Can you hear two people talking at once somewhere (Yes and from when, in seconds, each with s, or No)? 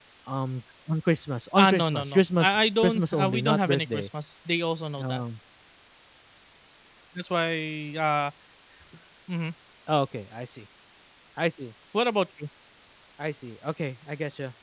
Yes, from 1.6 s